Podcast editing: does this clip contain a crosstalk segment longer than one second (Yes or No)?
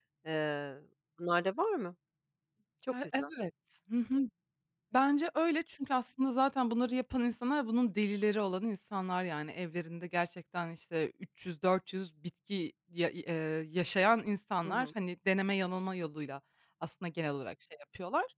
No